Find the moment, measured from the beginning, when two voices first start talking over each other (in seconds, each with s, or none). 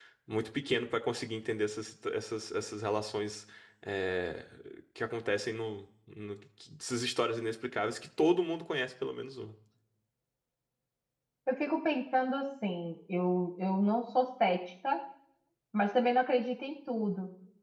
none